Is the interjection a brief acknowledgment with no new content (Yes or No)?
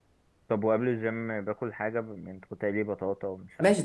No